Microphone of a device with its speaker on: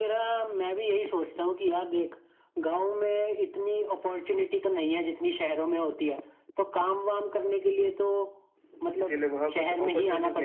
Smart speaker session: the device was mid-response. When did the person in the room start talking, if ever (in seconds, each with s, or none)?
9.0 s